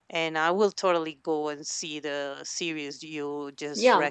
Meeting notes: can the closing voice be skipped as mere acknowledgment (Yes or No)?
No